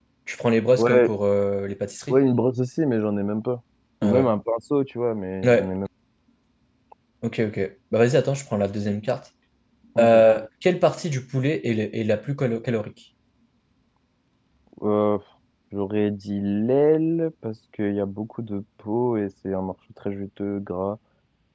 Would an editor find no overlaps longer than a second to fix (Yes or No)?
Yes